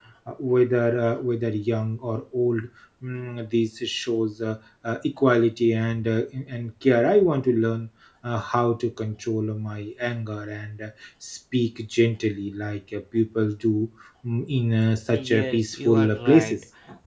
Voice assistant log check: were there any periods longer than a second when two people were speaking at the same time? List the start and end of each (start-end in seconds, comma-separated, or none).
15.1-16.5